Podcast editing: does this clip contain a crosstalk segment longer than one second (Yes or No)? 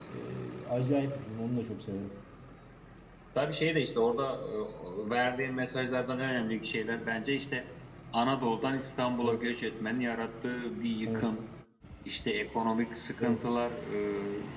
No